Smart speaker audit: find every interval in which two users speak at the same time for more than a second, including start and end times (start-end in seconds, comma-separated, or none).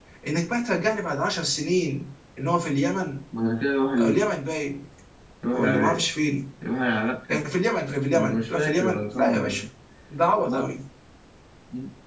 7.9-9.6